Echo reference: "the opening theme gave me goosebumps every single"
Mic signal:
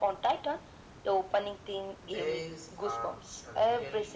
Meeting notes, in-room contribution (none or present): present